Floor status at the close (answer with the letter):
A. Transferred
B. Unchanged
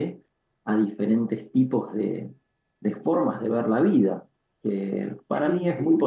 B